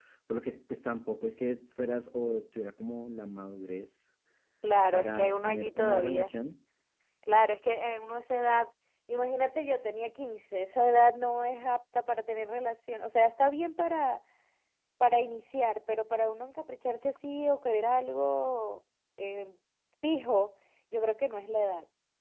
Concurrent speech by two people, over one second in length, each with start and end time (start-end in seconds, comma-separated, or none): 4.9-6.3